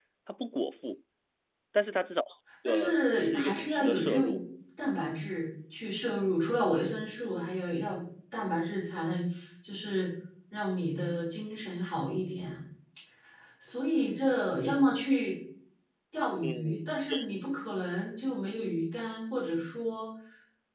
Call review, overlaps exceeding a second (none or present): present